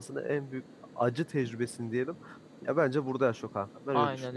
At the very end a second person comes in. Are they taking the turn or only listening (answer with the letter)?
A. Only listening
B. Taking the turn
B